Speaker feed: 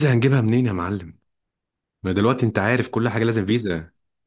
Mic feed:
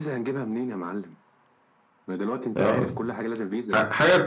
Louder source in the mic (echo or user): user